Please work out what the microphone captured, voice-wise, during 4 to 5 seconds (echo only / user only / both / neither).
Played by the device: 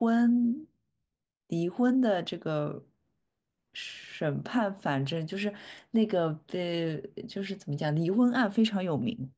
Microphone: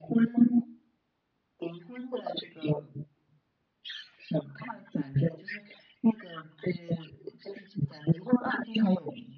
echo only